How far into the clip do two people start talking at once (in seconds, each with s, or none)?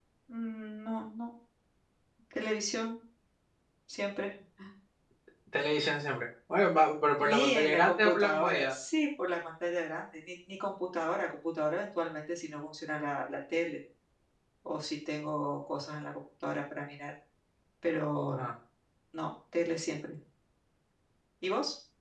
7.2 s